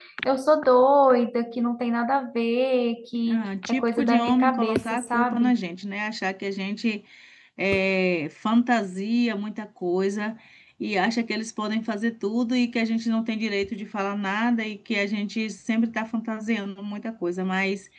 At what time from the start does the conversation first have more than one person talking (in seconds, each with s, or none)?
3.2 s